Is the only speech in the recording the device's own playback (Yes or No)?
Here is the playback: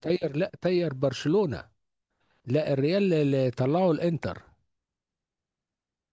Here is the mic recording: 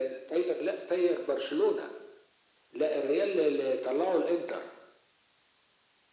Yes